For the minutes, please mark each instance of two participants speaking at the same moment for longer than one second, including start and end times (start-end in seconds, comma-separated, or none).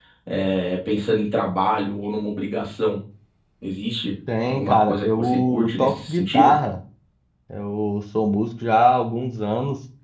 4.5-6.5